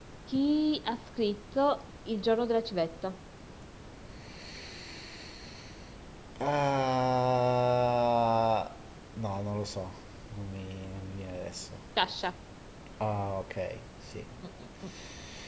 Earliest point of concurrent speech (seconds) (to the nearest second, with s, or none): none